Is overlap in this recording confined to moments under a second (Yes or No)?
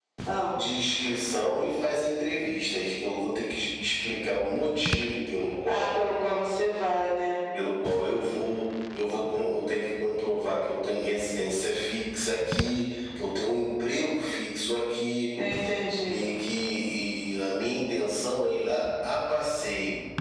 Yes